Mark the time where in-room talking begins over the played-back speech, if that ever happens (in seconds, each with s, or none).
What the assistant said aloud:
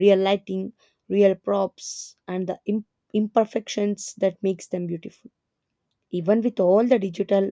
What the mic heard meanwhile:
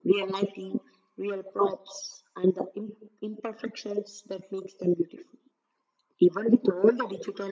none